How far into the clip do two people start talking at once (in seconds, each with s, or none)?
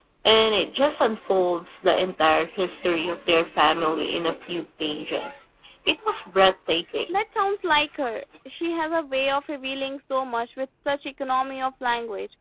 none